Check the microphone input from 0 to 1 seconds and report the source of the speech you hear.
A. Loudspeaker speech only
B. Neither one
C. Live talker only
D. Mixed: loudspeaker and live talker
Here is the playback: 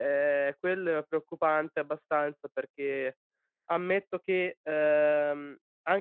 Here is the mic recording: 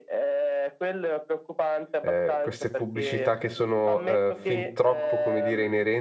A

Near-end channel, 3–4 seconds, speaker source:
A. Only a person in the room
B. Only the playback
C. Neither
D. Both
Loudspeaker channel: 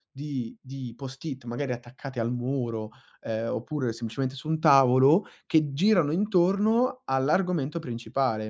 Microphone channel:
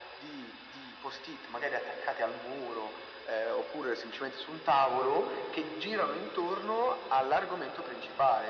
B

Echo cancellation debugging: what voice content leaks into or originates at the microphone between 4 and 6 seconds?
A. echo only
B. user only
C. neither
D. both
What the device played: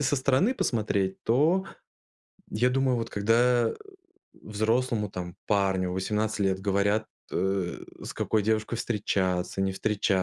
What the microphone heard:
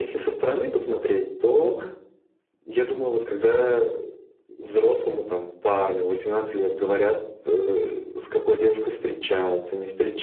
A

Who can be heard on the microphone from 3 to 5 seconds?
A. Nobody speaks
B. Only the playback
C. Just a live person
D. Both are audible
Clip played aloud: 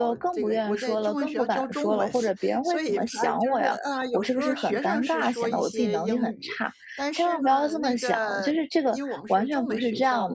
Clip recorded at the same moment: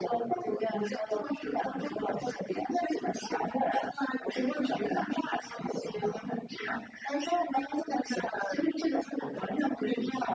B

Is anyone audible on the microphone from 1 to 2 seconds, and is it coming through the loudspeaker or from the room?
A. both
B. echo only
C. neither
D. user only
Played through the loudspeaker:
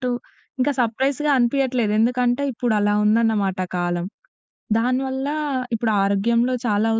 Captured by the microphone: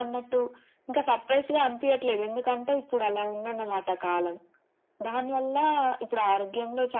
B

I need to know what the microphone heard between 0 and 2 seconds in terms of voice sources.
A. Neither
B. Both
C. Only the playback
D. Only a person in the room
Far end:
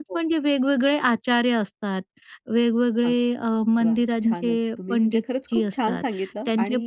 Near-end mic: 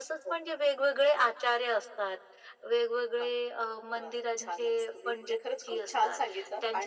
C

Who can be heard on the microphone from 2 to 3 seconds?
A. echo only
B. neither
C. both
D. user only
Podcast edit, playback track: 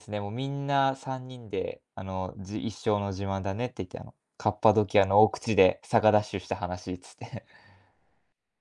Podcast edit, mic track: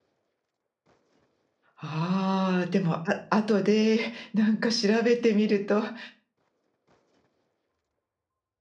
D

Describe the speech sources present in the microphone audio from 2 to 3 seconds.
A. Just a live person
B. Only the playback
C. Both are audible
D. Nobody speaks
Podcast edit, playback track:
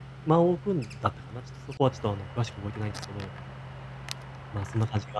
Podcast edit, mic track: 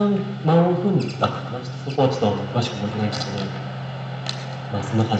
B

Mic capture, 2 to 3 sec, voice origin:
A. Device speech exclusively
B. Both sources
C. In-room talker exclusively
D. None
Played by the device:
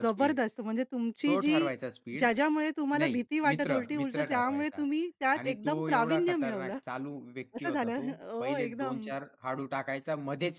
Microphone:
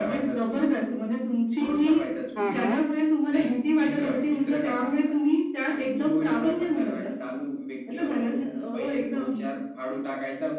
B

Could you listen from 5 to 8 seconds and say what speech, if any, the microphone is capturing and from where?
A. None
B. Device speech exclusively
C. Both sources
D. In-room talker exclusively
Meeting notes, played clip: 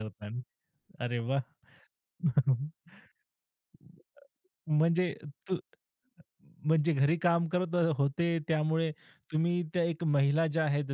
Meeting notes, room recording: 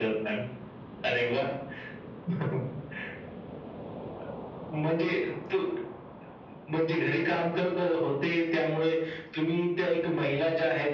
B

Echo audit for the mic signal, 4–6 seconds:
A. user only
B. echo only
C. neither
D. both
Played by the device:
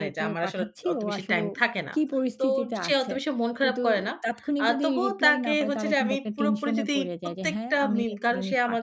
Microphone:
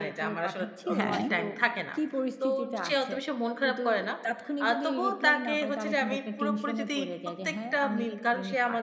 B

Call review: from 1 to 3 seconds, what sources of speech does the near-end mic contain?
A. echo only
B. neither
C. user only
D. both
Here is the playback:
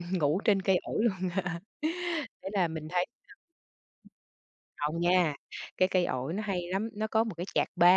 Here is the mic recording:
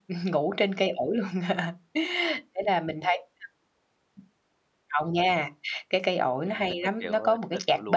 A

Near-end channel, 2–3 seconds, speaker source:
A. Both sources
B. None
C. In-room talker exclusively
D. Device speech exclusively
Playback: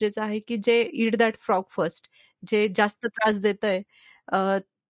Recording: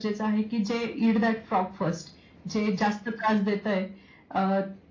D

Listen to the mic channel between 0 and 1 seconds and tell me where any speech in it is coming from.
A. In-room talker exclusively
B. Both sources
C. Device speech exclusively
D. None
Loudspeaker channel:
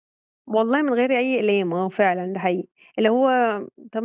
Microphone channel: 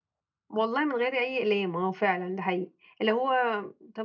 C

